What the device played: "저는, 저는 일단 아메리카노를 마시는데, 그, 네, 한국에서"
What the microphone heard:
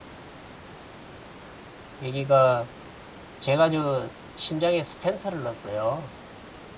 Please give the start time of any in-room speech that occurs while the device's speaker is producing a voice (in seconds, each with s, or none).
2.0 s